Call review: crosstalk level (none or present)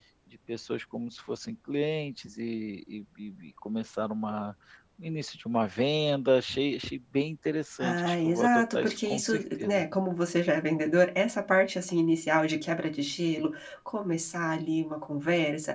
present